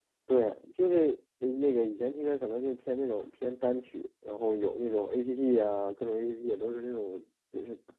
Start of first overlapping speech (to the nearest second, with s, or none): none